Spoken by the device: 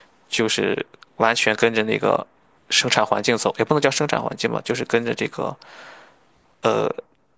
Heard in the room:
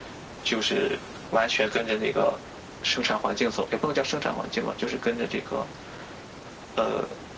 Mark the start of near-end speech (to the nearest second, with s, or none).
none